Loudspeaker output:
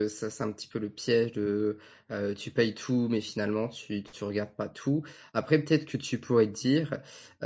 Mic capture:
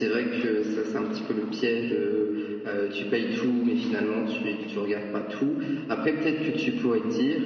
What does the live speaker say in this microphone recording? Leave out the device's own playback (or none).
none